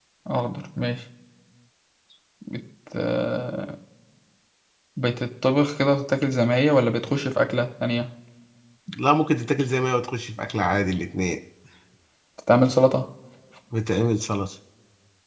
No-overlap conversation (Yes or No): Yes